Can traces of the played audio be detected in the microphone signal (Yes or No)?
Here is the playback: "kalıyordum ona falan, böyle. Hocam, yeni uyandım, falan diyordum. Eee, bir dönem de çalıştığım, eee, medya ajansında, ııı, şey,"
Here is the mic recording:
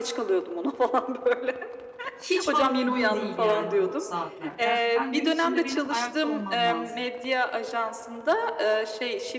Yes